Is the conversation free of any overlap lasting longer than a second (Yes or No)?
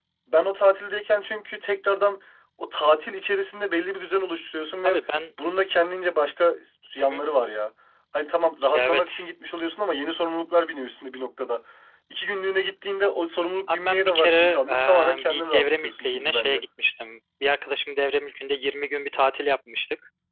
No